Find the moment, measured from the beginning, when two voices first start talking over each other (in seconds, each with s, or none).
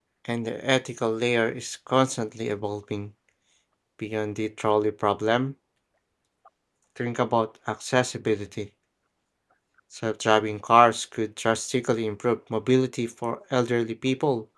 none